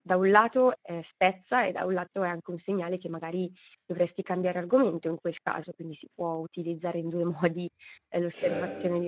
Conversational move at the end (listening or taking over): taking over